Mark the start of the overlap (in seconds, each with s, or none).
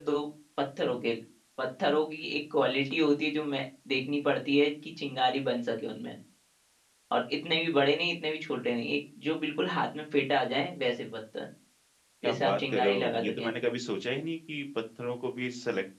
12.2 s